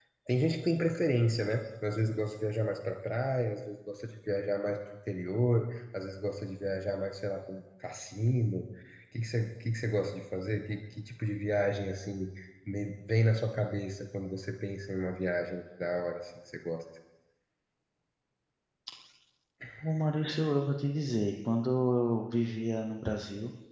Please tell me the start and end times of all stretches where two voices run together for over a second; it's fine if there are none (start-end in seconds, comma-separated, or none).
none